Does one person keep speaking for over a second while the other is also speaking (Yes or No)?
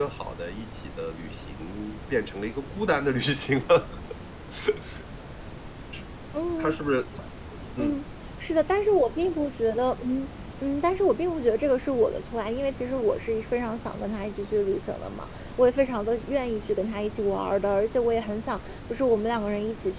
No